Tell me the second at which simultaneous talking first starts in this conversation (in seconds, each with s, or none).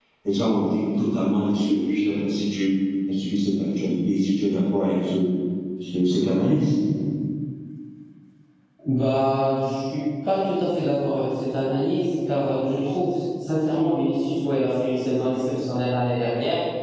none